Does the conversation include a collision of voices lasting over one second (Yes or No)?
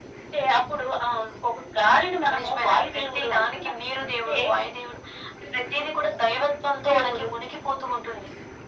Yes